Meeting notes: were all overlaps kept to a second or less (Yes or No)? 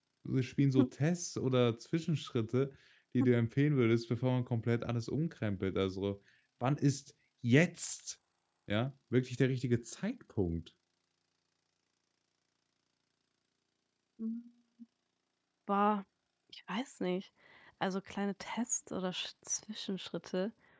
Yes